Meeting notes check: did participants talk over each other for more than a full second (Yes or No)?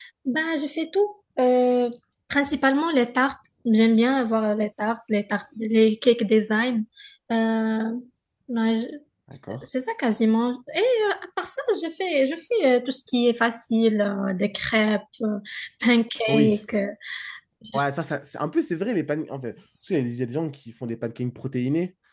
No